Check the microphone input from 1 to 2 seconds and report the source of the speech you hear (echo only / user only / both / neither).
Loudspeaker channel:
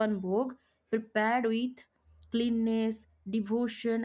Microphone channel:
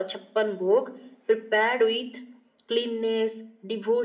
echo only